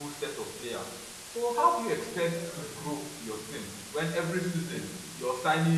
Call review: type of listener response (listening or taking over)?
listening